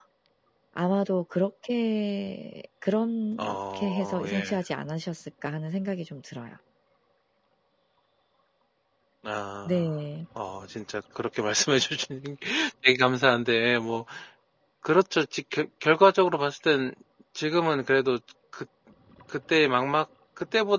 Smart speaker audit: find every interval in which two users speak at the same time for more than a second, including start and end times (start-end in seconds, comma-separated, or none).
3.4-4.6